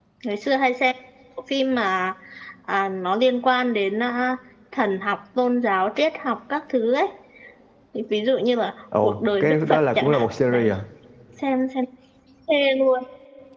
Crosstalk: present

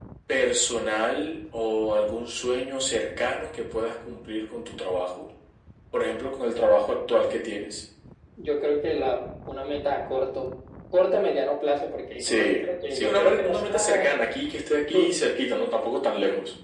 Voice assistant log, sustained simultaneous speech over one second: present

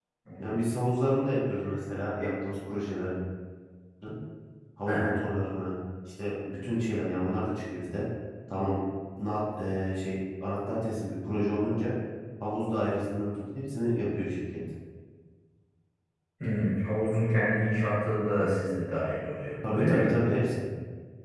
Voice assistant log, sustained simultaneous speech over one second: none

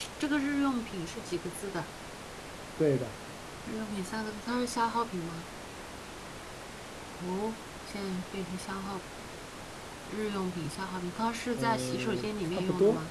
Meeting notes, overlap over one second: present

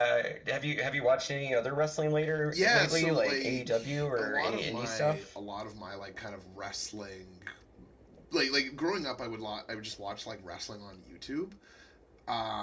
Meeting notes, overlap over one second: present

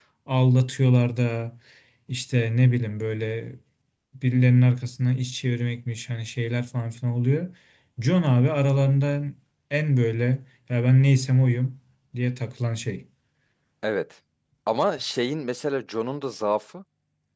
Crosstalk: none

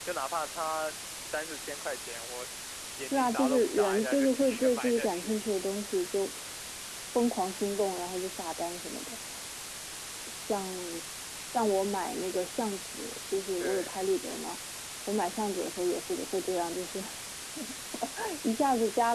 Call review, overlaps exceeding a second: present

